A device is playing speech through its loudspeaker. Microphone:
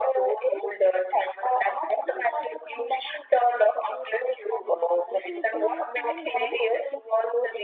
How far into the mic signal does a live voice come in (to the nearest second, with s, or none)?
5 s